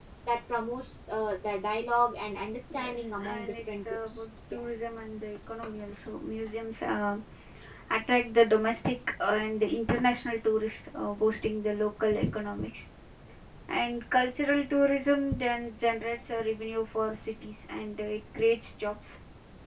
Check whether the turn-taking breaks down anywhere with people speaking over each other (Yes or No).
Yes